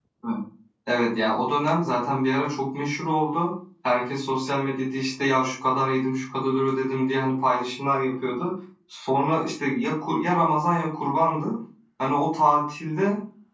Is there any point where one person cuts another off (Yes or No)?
No